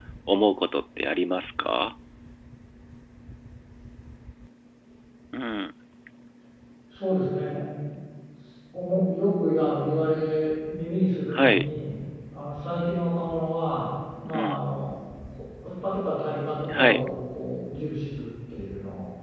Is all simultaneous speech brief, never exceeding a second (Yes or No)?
Yes